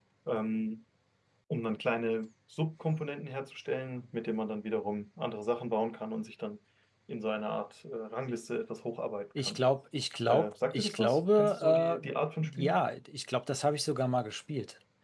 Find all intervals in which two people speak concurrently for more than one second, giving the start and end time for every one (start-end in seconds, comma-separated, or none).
10.3-12.1